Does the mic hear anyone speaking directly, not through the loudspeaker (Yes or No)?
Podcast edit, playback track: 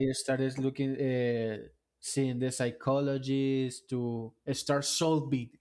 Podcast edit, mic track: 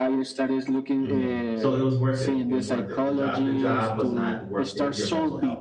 Yes